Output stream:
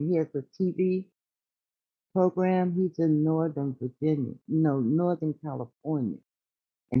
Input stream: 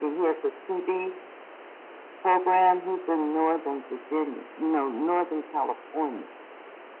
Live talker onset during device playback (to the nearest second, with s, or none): none